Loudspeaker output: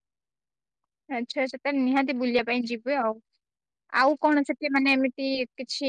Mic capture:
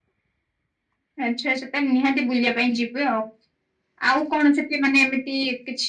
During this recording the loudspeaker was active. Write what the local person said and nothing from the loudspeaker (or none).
none